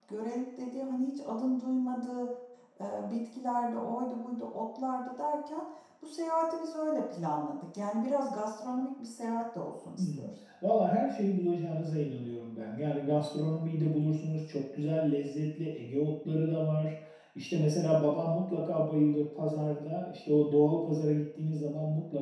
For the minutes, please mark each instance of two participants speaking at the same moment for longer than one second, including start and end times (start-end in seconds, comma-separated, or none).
none